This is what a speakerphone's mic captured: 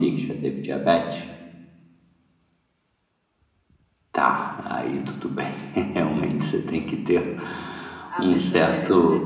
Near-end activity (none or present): present